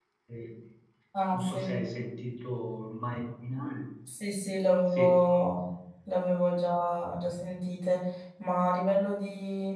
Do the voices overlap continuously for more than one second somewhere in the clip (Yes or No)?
No